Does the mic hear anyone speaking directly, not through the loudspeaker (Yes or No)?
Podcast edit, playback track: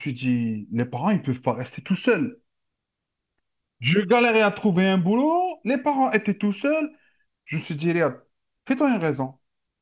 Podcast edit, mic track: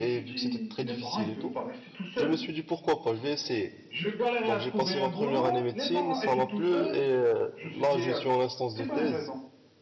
Yes